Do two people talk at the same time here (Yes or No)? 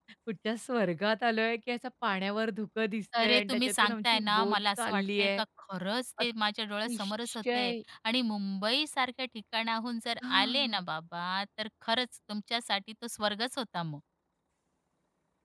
Yes